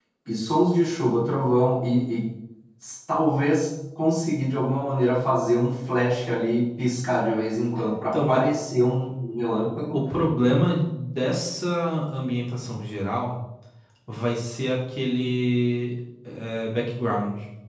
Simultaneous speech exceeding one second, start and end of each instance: none

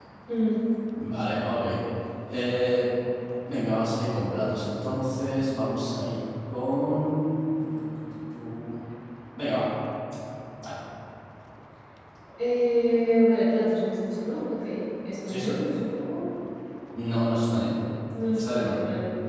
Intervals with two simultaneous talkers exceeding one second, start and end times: none

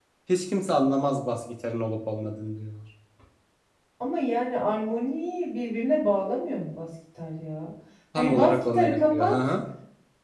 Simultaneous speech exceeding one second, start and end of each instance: 8.2-9.4

